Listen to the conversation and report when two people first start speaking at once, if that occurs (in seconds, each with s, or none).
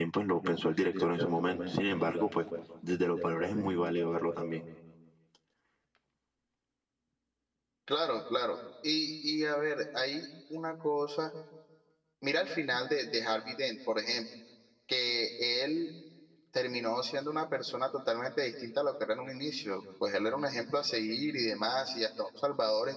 none